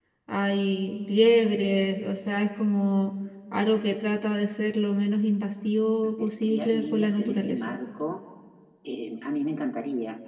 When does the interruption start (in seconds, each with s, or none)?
6.0 s